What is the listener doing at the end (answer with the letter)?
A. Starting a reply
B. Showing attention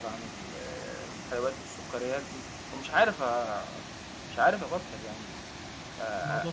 B